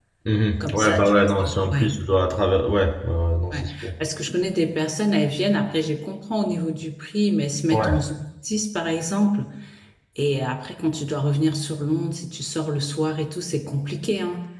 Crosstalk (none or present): present